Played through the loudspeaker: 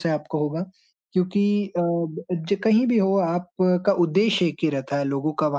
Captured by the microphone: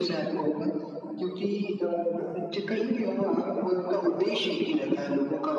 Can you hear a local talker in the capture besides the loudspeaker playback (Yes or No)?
No